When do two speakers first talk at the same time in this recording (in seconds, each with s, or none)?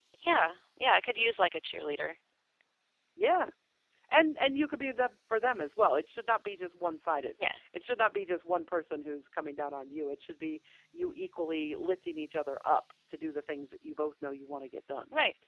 none